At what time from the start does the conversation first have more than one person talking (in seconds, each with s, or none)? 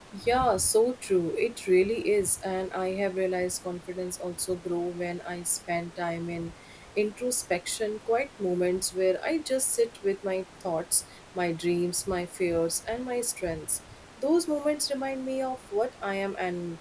none